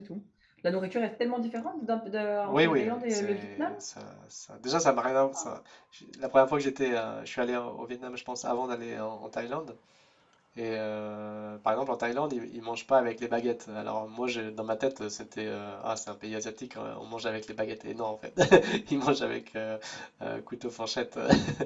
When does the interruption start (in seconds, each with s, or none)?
2.4 s